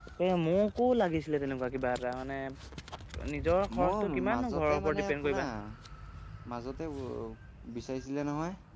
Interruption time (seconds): 3.8 s

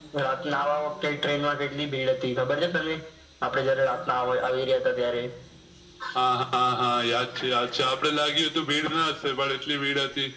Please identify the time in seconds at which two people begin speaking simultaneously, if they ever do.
none

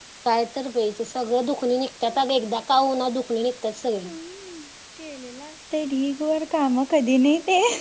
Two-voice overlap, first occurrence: none

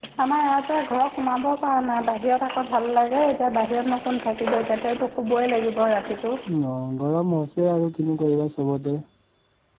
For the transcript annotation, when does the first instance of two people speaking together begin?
none

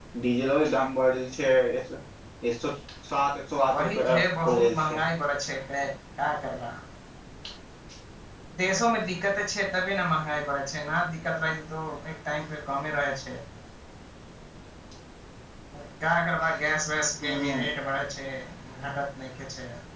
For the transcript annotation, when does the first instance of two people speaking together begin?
3.8 s

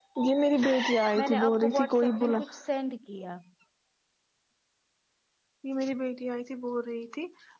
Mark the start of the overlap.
1.2 s

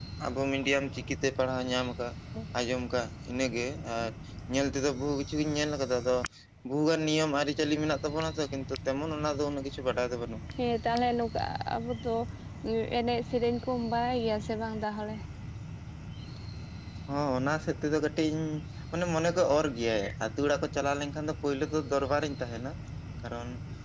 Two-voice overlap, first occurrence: none

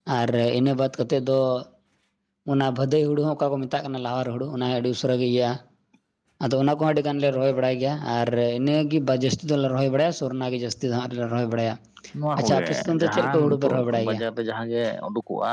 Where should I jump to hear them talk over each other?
12.4 s

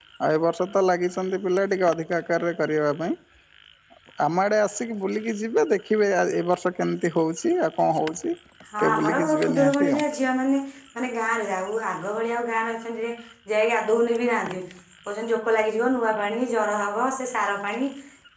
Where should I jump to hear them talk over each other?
8.8 s

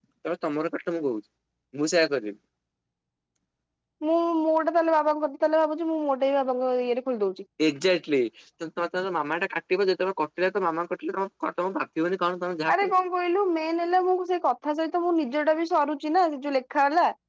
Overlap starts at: none

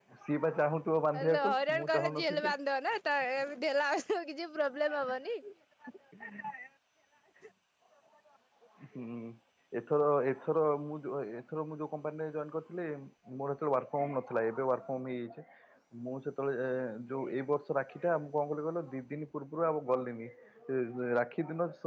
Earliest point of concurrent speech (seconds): 1.2 s

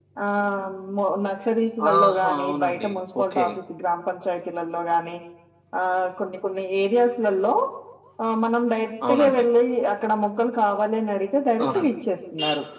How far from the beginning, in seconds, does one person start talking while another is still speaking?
1.9 s

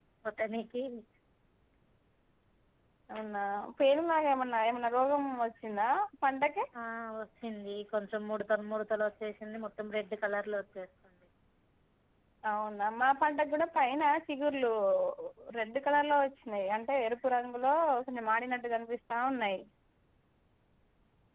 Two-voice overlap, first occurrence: none

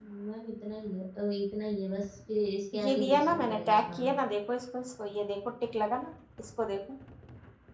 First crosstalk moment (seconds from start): 2.7 s

